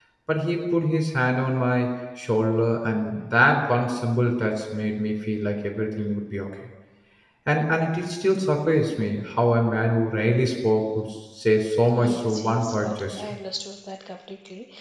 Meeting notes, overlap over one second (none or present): present